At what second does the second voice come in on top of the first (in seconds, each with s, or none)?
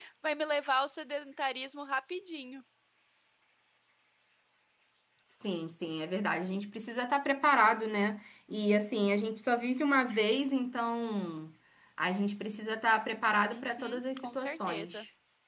13.5 s